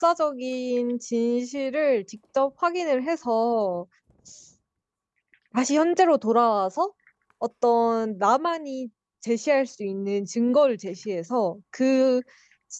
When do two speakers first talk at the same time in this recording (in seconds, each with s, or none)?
none